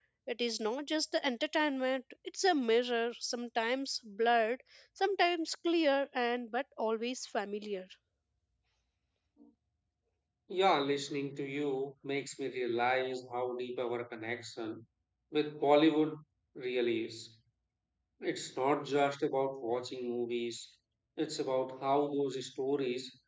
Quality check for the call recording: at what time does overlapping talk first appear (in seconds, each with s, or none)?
none